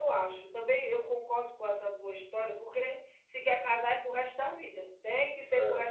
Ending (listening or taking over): taking over